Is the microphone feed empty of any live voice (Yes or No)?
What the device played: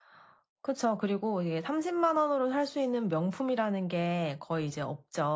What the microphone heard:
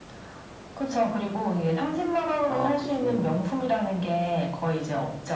No